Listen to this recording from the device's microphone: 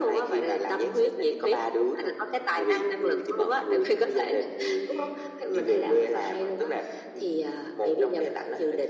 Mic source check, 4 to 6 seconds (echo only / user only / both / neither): echo only